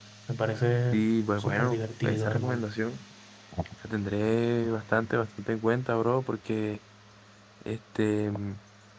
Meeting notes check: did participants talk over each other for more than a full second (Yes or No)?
Yes